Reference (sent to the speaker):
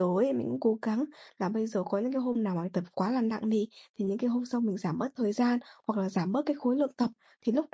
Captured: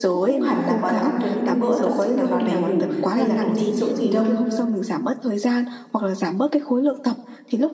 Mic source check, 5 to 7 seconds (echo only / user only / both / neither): echo only